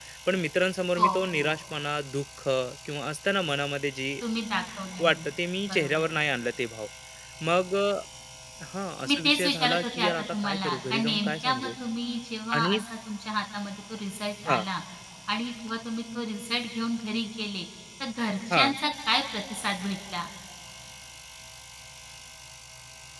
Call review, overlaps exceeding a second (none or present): present